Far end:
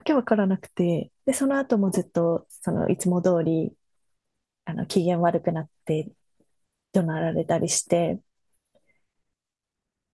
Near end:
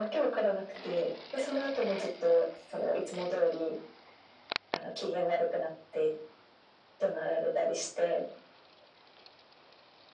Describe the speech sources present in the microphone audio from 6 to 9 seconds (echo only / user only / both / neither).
echo only